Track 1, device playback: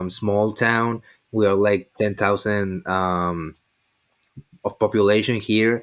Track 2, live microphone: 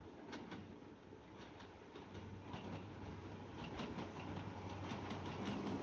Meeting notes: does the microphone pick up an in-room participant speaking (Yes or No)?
No